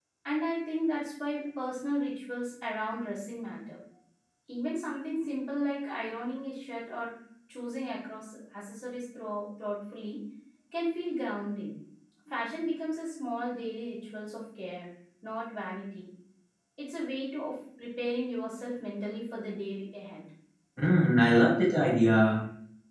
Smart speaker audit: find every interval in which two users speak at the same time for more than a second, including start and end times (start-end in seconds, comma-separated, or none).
none